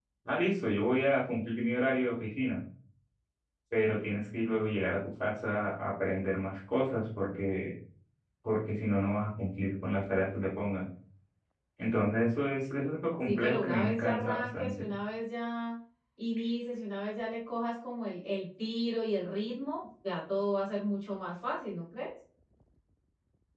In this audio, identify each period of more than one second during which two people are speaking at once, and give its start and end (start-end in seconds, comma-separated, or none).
13.2-14.9